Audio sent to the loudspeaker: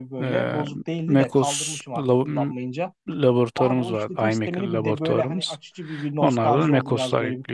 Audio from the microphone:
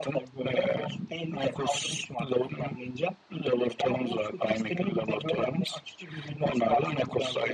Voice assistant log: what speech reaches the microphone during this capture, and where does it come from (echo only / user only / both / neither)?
echo only